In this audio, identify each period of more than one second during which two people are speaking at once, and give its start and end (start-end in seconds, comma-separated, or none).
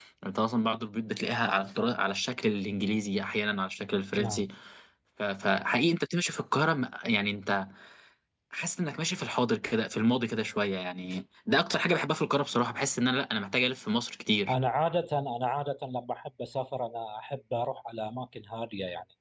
none